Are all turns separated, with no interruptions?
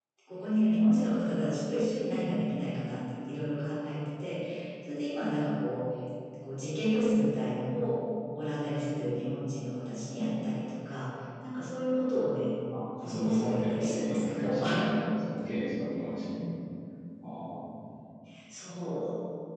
No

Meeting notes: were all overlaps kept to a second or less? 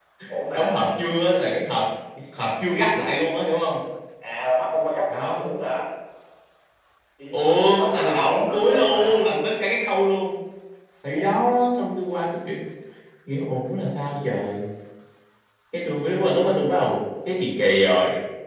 No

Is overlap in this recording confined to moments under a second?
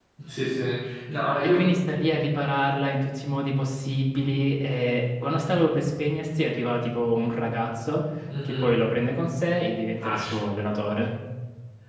Yes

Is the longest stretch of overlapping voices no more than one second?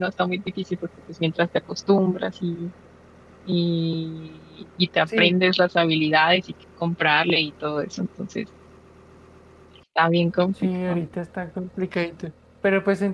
Yes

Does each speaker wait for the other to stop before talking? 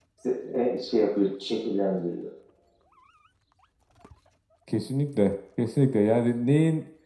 Yes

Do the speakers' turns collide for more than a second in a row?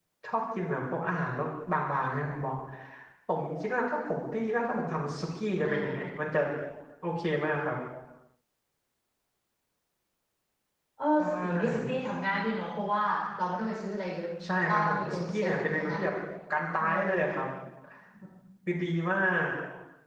Yes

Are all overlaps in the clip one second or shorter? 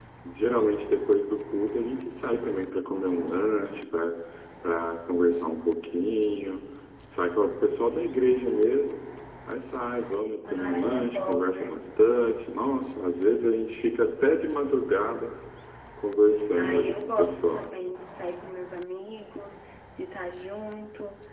No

